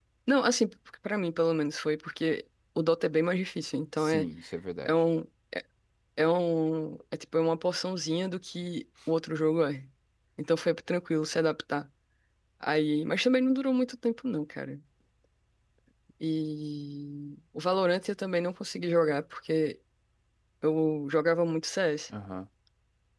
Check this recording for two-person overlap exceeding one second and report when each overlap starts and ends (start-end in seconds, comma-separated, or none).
none